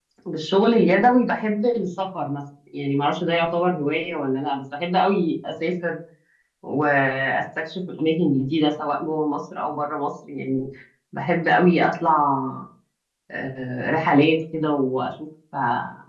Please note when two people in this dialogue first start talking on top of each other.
none

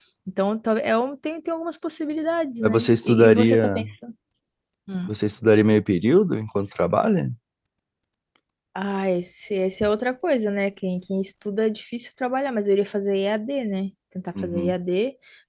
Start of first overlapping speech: 3 s

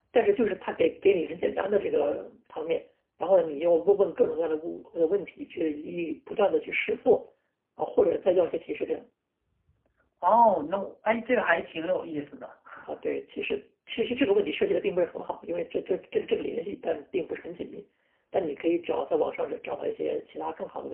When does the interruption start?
none

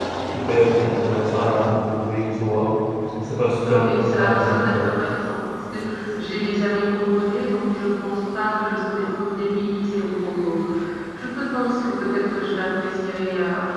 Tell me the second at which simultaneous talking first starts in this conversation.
4 s

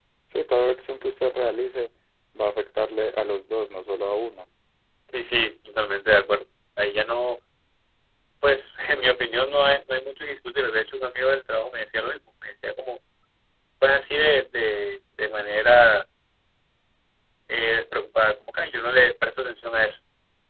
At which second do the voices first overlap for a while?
none

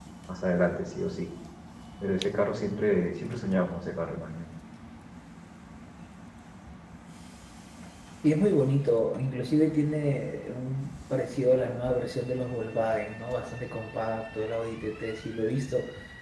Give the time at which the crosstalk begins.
none

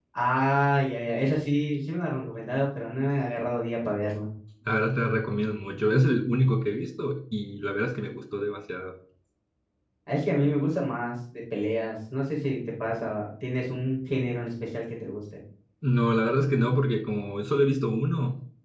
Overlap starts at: none

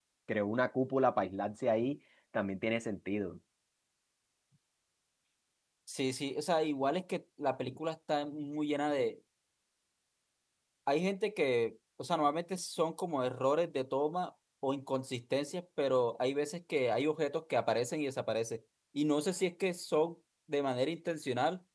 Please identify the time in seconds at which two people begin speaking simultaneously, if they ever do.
none

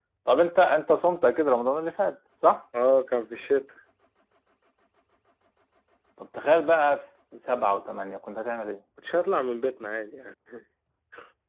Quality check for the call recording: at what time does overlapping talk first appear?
none

